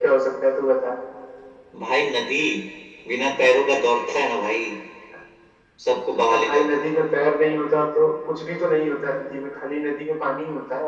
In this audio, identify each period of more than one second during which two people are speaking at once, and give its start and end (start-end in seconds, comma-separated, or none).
none